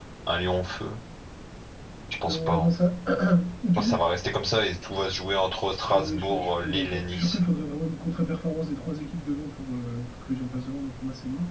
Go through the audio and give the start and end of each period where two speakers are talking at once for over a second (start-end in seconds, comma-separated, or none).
5.9-7.4